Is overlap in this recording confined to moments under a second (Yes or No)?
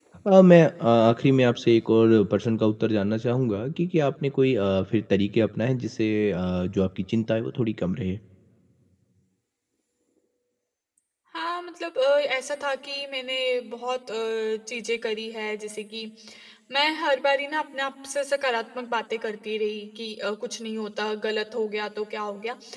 Yes